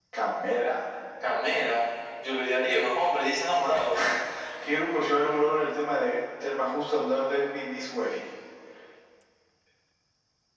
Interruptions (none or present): none